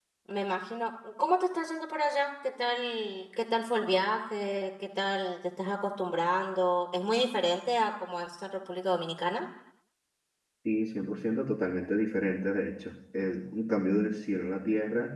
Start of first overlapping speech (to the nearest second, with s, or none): none